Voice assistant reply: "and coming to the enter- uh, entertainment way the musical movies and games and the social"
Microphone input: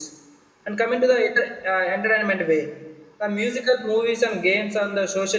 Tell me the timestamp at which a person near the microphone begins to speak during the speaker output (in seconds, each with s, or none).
none